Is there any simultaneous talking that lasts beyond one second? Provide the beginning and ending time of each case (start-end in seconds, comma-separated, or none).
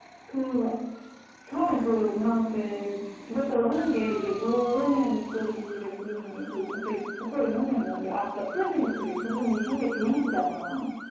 none